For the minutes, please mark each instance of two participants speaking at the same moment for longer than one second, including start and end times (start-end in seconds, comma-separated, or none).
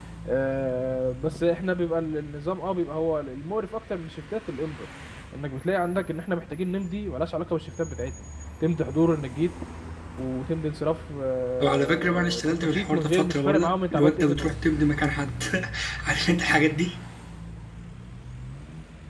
11.6-14.5